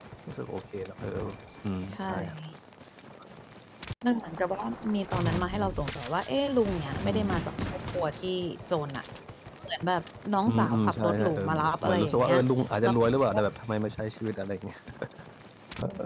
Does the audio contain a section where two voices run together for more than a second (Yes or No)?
Yes